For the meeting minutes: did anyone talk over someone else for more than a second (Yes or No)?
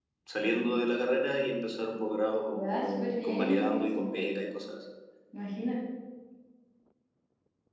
Yes